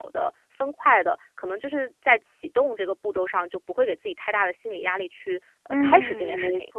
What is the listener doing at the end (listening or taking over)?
taking over